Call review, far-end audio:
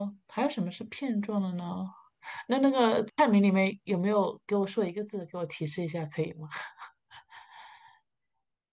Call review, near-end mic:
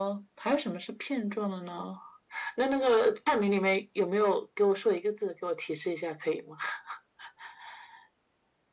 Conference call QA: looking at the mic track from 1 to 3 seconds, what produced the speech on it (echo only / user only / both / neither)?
echo only